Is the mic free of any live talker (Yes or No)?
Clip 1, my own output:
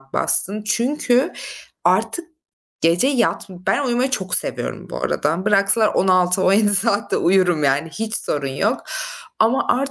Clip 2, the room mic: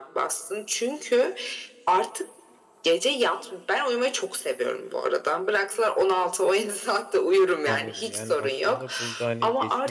No